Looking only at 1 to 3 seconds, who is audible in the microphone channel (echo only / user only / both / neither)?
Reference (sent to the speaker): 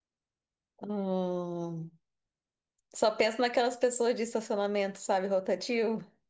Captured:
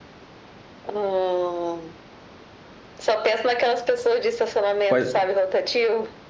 echo only